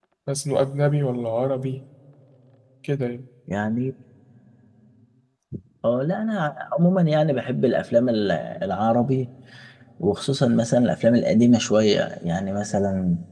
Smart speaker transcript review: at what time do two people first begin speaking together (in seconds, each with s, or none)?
none